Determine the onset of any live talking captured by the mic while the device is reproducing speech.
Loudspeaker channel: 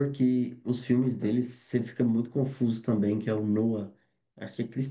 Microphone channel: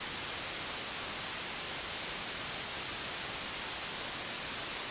none

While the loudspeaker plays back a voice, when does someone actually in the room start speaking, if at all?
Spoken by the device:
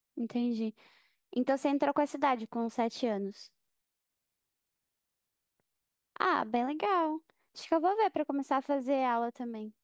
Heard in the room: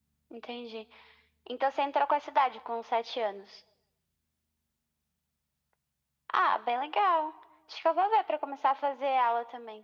none

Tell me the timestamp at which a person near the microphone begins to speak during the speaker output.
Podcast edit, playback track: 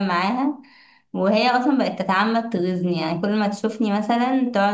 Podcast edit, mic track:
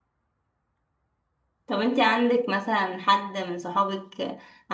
1.6 s

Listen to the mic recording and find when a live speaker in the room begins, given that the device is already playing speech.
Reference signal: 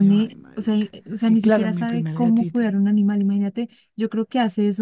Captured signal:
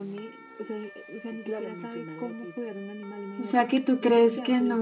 3.4 s

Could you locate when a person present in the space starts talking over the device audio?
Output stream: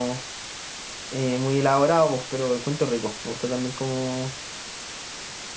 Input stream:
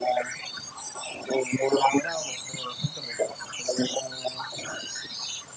none

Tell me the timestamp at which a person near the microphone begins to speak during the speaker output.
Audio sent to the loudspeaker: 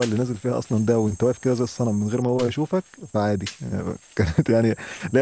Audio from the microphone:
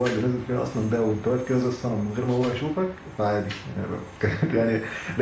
none

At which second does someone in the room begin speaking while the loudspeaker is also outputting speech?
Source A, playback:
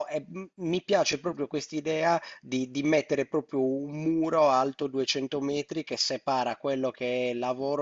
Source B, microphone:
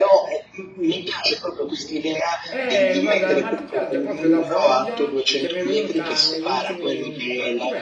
2.5 s

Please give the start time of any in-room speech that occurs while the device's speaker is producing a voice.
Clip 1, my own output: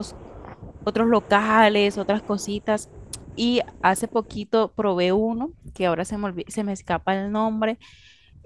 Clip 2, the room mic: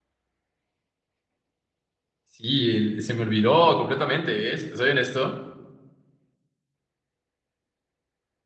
2.2 s

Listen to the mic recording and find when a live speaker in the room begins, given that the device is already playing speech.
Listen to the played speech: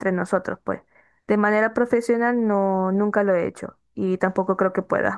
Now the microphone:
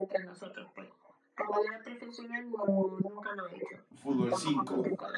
3.9 s

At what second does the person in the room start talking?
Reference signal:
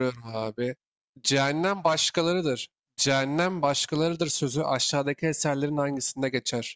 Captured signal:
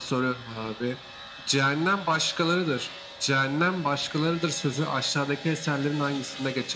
none

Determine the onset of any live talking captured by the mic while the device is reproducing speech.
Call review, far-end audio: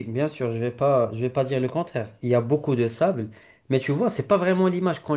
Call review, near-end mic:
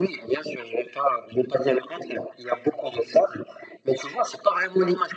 none

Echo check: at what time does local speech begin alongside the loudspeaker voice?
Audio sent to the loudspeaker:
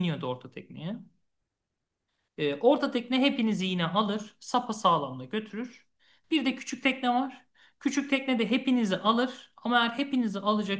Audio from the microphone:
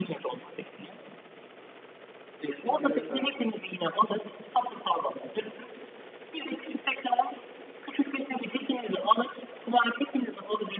2.6 s

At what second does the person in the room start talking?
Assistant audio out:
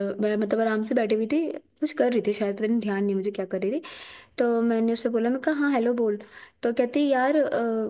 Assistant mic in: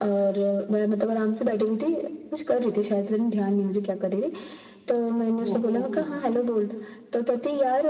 5.4 s

